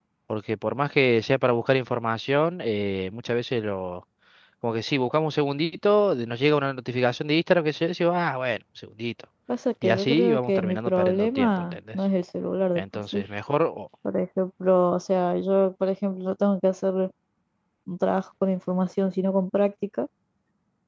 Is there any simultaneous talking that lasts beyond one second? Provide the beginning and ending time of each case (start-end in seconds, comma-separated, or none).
9.8-12.0